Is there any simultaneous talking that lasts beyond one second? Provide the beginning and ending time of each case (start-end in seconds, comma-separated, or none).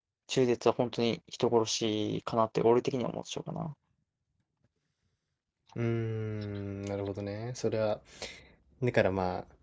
none